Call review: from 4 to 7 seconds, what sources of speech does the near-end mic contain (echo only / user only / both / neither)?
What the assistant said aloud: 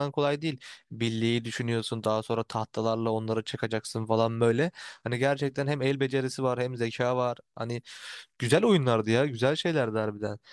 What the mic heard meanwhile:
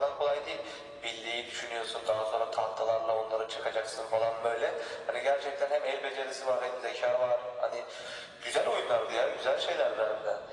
echo only